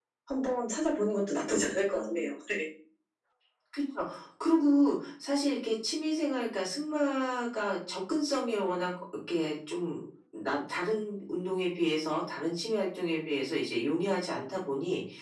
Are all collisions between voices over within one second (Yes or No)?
Yes